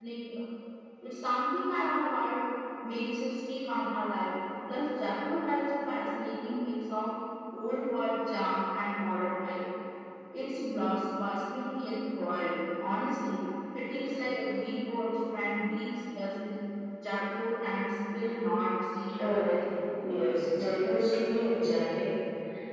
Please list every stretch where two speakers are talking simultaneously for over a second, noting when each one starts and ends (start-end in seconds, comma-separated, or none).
none